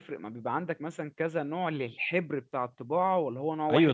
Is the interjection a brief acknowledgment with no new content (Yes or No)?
No